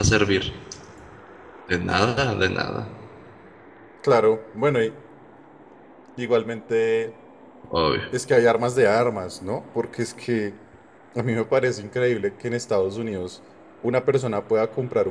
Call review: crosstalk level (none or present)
none